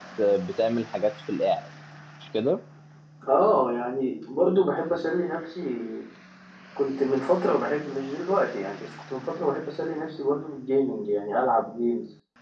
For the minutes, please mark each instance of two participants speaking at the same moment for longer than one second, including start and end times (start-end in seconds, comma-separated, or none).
none